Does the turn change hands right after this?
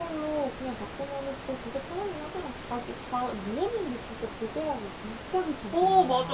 Yes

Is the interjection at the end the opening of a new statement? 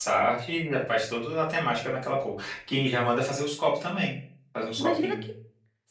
Yes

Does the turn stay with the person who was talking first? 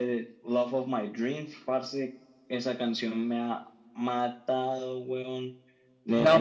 No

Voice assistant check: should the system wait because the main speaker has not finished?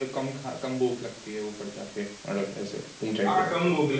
No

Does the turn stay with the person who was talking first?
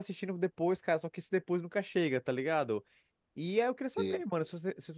Yes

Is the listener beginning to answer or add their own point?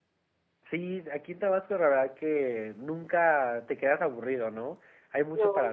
No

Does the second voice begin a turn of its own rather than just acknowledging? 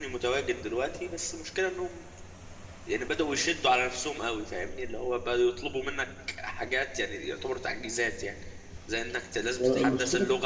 No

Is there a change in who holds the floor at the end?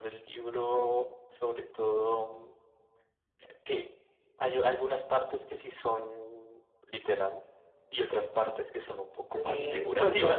Yes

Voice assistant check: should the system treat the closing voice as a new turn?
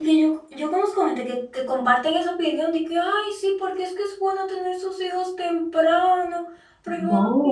No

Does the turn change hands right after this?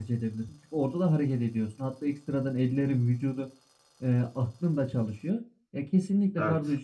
No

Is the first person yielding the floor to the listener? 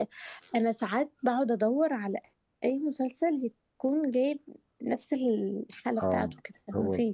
Yes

